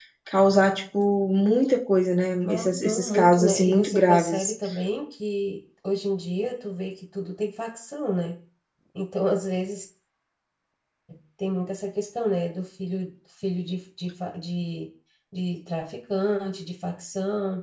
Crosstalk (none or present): present